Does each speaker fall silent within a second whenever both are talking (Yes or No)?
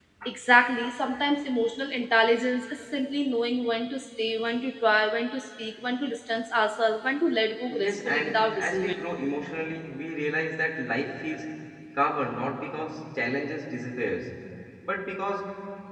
No